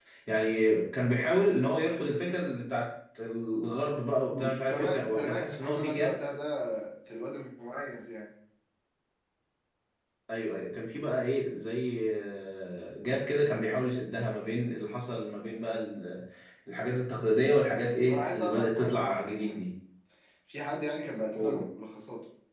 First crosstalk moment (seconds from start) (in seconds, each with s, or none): 4.3 s